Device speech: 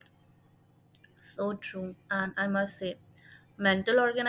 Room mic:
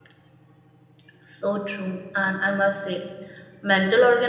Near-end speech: none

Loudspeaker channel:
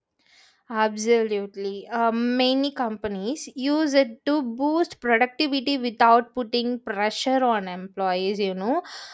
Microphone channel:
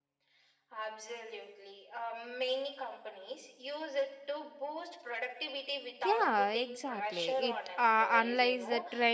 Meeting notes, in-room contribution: present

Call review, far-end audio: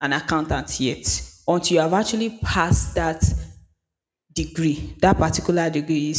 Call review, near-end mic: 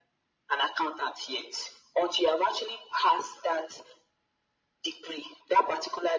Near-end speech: none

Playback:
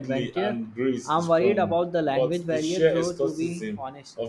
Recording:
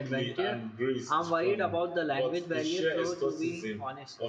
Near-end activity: none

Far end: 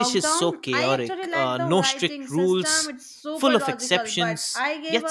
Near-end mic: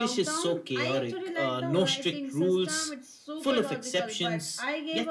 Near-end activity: none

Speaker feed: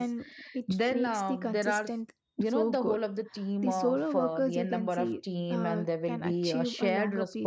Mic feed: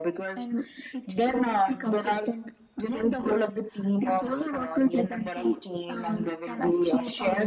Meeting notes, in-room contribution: none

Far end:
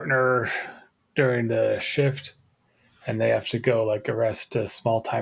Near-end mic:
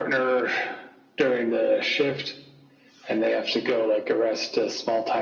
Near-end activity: none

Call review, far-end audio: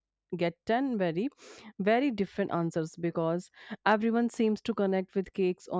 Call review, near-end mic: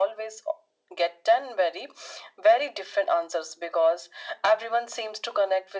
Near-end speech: none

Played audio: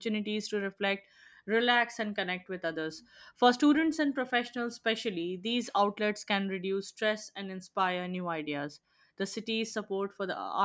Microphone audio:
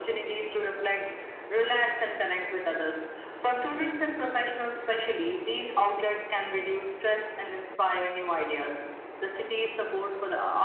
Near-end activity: none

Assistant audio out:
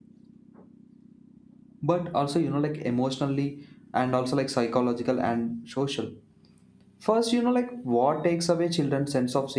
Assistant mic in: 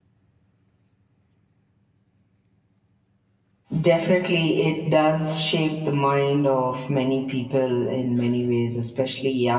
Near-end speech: present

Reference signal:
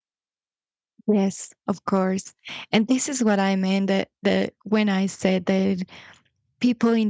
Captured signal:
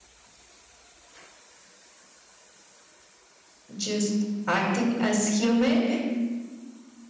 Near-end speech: present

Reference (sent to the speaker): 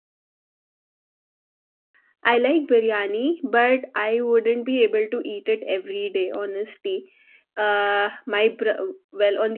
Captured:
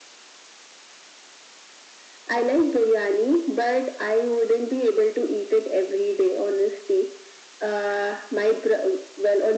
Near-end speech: none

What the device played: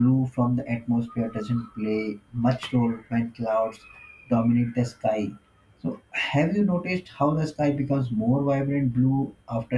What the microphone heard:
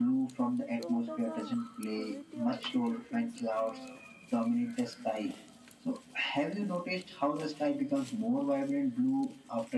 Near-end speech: present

